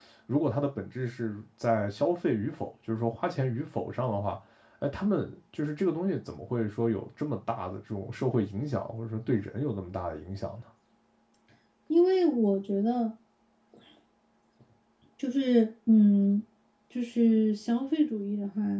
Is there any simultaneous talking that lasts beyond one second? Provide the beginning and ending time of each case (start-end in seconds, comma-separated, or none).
none